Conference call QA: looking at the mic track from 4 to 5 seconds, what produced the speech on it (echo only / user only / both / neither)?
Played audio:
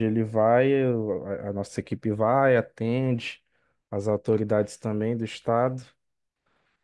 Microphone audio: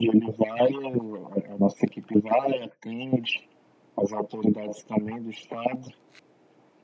echo only